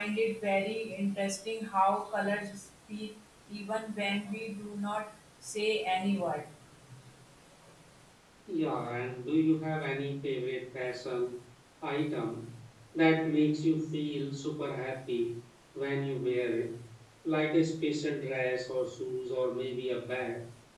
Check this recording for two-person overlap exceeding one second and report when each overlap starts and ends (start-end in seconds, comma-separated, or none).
none